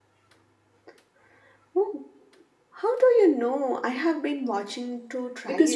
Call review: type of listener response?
taking over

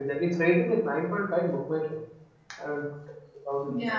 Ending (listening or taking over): listening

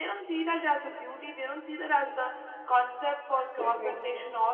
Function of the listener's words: listening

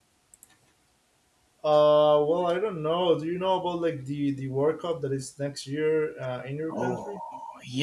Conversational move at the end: taking over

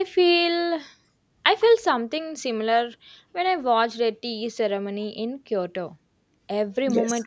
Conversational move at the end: listening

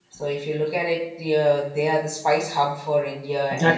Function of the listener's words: taking over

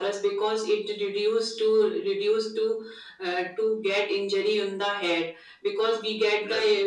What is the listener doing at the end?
listening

